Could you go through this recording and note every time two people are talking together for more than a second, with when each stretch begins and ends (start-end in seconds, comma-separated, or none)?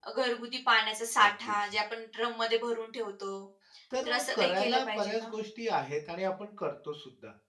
4.0-5.3